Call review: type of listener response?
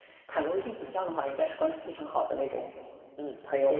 taking over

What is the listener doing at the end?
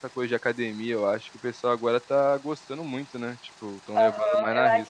taking over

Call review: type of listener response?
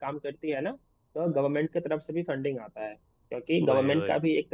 listening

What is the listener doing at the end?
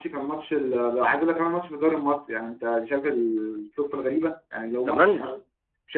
listening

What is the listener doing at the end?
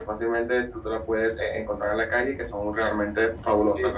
listening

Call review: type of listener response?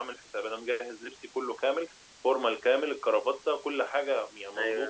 listening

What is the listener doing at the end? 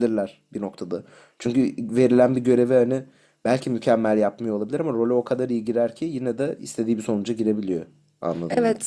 taking over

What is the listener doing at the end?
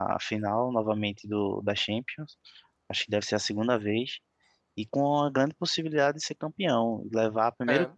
listening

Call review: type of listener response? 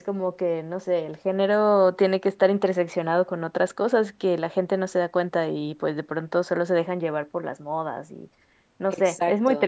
taking over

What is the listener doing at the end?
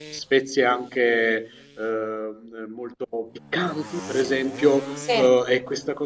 listening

